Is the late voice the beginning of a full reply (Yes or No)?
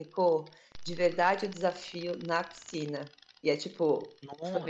No